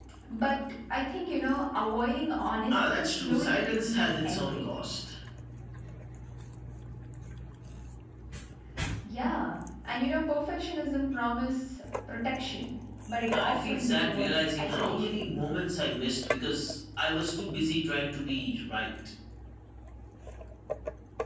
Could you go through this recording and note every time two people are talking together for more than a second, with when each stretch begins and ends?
2.7-4.6, 13.2-15.3

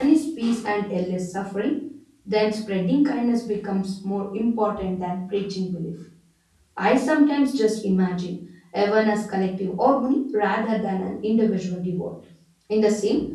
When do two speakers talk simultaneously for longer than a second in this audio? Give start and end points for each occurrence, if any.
none

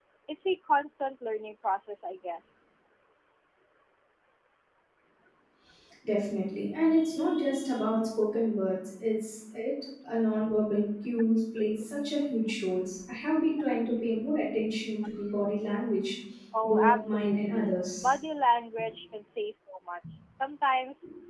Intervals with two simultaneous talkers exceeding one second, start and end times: 16.6-18.1

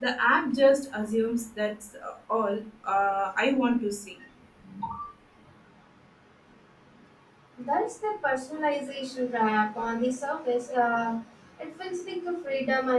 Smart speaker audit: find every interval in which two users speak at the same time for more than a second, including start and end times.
none

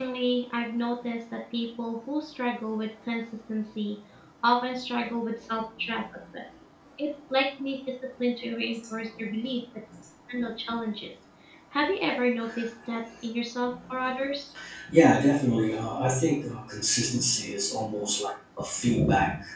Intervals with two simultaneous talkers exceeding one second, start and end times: none

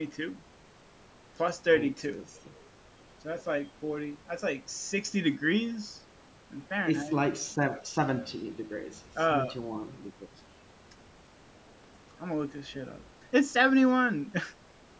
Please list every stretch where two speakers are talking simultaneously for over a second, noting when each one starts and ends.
none

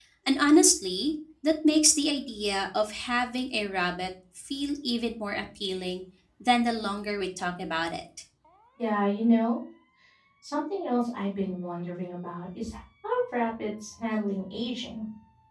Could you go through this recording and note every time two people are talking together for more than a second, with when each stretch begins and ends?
none

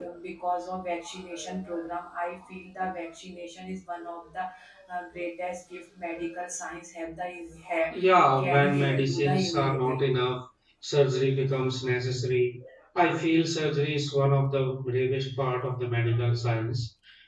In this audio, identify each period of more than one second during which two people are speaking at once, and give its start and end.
8.4-10.0

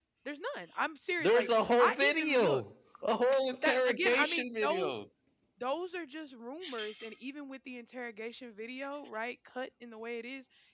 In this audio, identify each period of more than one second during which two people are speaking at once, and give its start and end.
1.2-2.6, 3.6-5.0

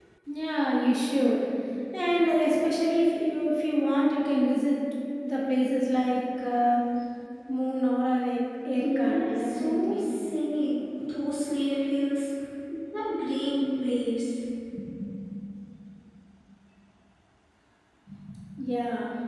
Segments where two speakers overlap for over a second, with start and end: 8.8-10.0

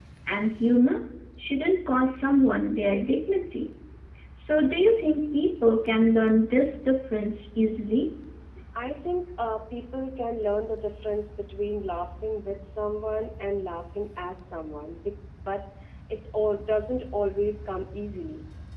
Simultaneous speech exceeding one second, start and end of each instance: none

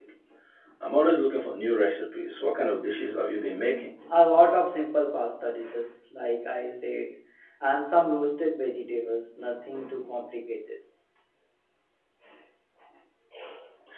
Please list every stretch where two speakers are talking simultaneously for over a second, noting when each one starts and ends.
none

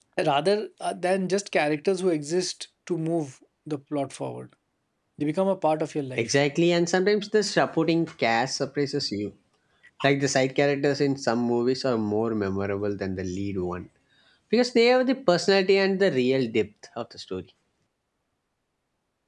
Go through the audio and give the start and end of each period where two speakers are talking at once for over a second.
none

